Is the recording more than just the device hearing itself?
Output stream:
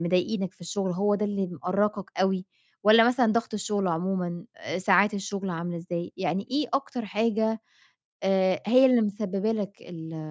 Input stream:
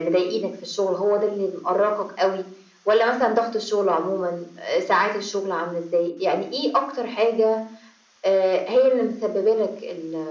No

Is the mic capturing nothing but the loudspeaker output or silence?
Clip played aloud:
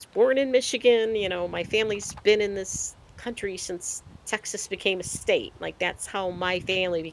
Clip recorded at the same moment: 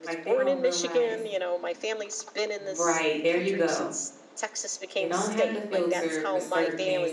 No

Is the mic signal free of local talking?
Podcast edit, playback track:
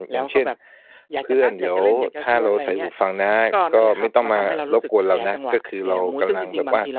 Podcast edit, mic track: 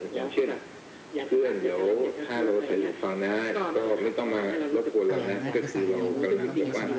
No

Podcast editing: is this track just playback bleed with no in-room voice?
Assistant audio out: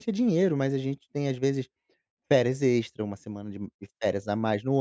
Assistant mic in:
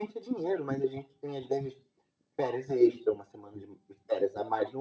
Yes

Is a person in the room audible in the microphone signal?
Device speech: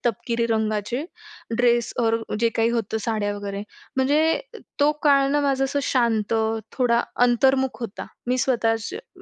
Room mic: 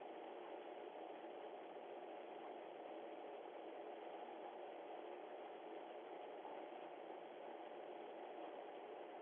No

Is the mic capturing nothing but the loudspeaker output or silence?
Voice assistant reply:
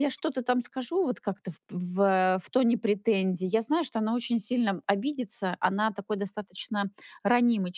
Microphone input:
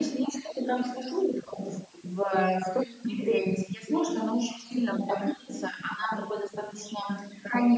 Yes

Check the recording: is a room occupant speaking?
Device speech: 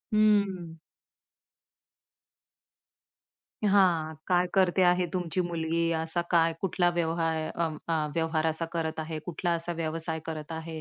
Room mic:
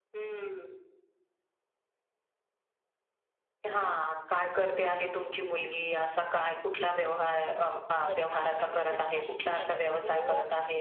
Yes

